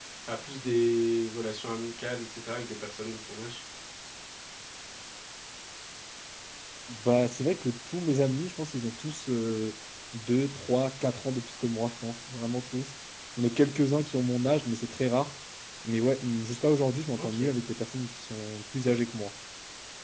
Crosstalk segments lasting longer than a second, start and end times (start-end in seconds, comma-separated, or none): none